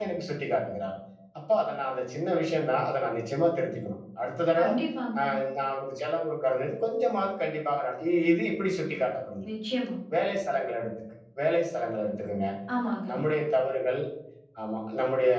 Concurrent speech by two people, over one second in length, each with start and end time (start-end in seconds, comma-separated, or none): none